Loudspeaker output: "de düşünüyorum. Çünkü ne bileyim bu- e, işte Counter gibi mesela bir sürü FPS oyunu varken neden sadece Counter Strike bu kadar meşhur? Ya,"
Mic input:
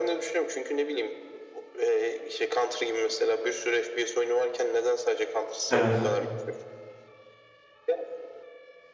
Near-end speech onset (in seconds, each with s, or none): 5.7 s